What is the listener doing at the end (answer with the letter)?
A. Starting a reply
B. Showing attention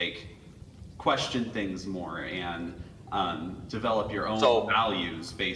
B